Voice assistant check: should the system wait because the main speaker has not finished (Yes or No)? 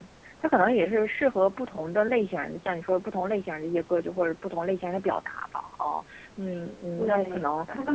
No